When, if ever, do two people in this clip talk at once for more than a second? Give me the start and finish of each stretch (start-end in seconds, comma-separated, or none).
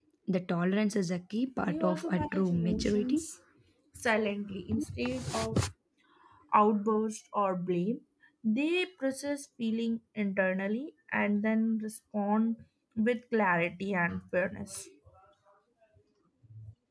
1.6-3.2